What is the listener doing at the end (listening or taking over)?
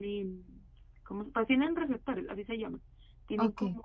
listening